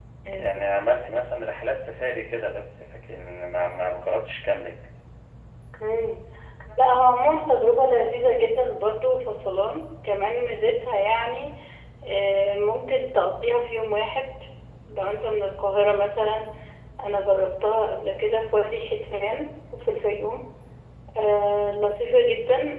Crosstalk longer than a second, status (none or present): none